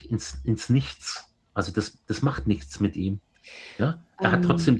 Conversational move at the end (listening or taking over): listening